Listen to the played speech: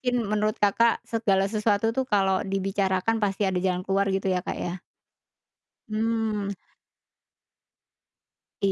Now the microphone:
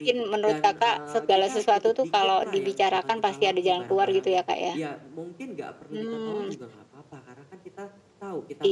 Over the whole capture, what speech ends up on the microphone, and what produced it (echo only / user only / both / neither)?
both